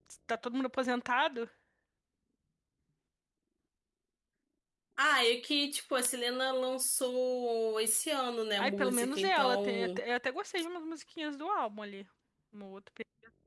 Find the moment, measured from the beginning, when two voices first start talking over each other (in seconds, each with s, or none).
8.6 s